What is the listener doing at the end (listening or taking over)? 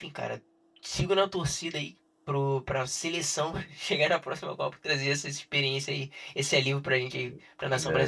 taking over